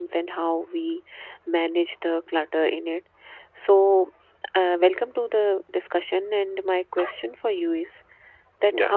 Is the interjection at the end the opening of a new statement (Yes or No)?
No